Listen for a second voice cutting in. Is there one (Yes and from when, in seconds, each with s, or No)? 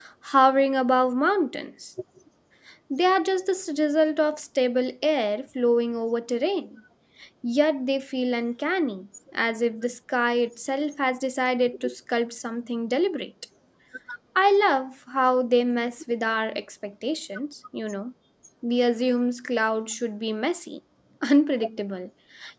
No